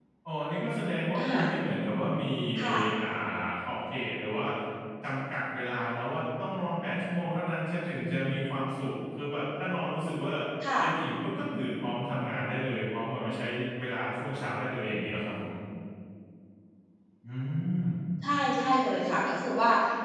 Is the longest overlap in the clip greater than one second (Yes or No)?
No